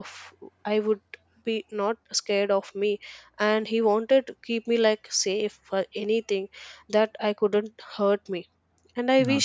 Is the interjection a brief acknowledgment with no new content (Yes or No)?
Yes